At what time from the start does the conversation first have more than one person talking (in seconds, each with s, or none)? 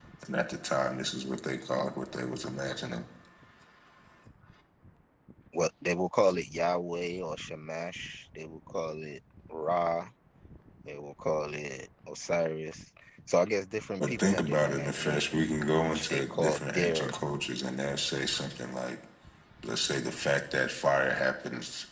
14.0 s